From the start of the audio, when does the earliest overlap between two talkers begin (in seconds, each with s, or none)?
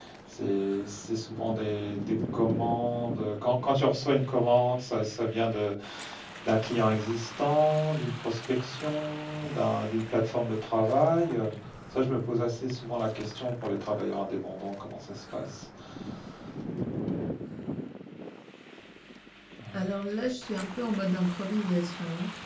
none